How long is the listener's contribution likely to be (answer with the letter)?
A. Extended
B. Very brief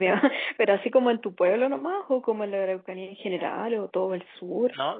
A